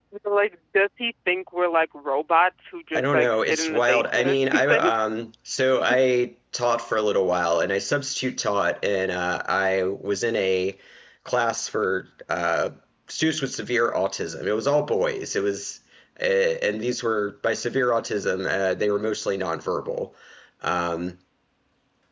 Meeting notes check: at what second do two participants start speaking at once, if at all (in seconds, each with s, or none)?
3.0 s